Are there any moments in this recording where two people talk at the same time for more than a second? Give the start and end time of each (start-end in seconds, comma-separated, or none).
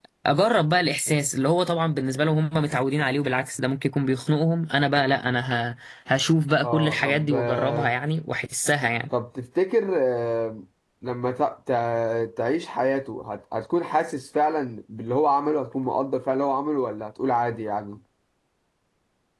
6.6-7.9